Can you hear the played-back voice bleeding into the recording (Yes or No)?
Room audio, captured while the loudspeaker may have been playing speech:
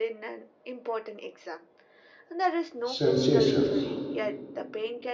Yes